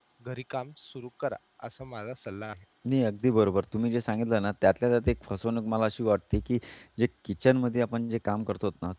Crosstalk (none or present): none